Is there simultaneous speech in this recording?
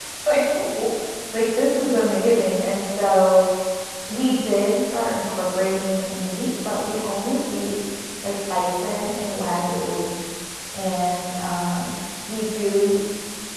No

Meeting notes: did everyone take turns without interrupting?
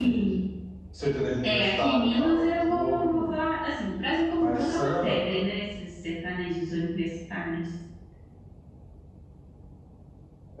No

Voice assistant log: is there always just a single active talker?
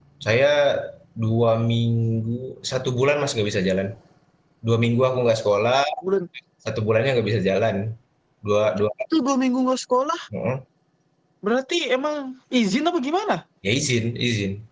Yes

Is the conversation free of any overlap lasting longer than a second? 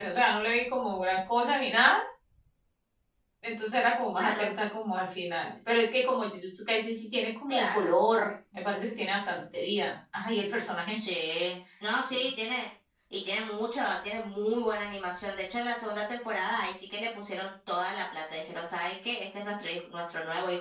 Yes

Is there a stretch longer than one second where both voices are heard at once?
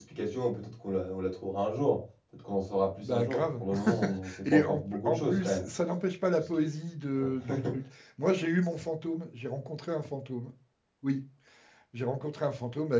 Yes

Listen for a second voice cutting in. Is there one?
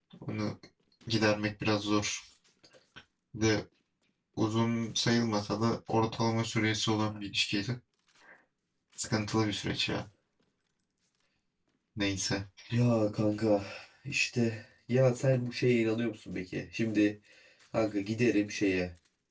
No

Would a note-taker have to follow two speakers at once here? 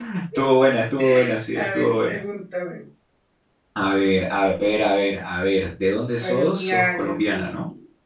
Yes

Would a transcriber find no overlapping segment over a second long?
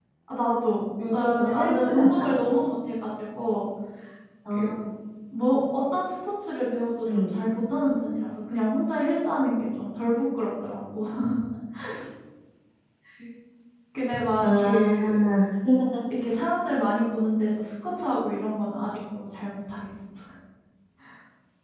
No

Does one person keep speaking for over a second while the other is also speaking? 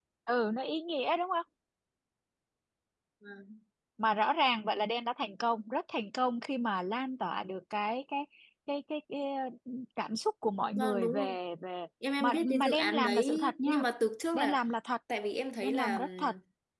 Yes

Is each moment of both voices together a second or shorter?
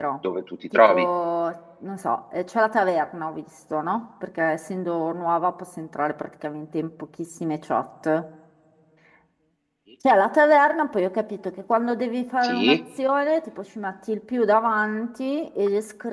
Yes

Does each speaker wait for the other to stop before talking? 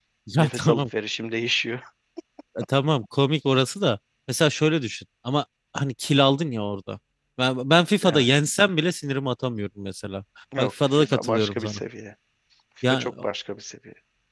No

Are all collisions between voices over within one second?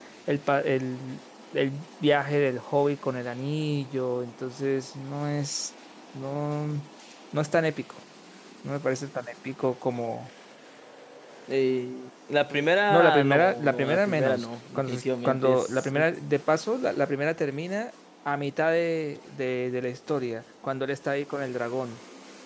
No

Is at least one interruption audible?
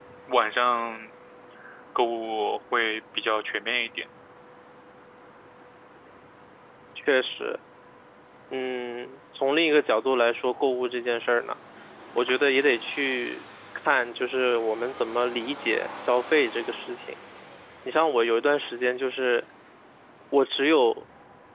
No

